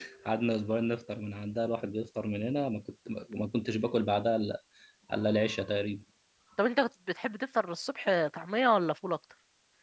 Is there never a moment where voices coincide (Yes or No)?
Yes